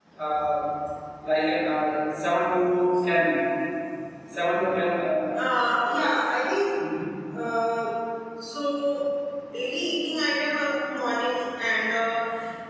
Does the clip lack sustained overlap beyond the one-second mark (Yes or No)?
Yes